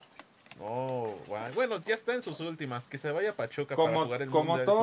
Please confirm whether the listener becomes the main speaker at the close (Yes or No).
Yes